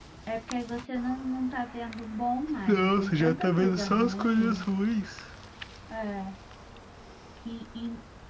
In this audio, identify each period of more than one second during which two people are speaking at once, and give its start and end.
2.7-4.7

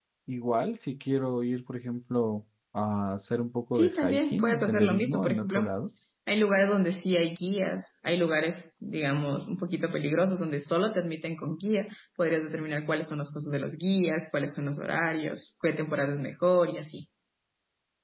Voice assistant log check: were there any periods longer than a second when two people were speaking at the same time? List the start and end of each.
3.7-5.7

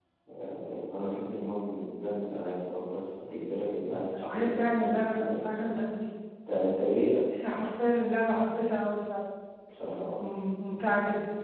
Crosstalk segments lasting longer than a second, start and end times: 4.1-5.6

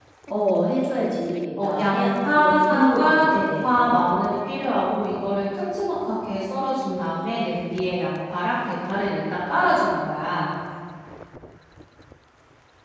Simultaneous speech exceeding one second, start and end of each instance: 1.6-4.0

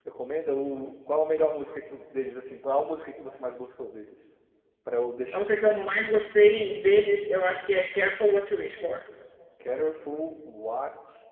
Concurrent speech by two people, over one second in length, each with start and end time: none

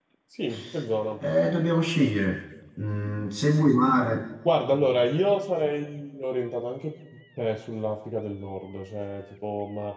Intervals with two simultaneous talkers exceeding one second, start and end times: none

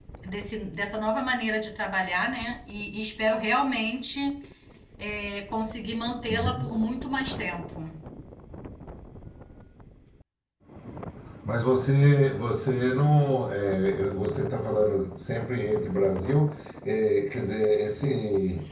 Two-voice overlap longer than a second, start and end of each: none

